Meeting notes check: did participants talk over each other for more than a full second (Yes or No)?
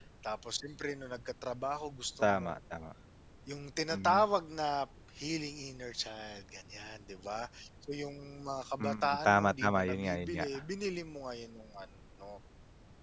Yes